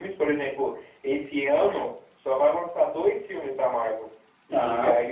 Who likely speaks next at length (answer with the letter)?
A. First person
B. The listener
A